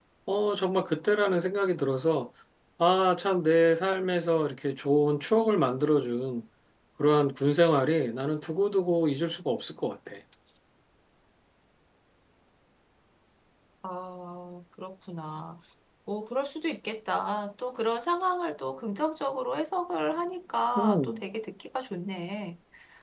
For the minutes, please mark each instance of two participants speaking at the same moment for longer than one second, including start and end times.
none

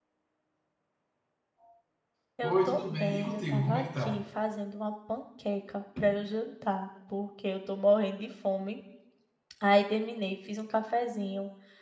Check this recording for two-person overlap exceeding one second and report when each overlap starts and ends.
2.4-4.2

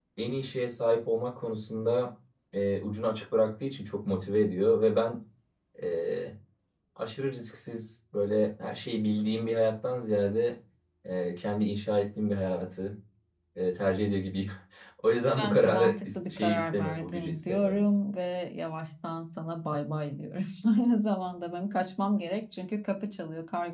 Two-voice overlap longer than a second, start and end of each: 15.4-17.8

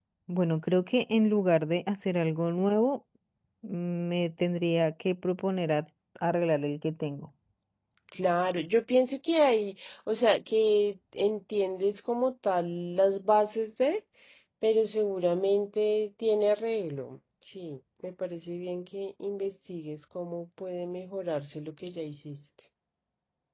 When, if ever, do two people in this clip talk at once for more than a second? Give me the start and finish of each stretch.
none

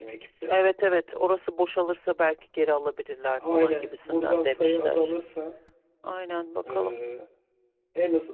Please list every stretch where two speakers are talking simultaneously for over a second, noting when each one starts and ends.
3.5-5.1

